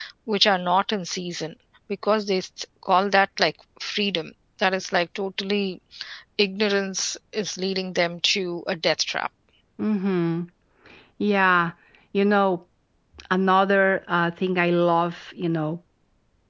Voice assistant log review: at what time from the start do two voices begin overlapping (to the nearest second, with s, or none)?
none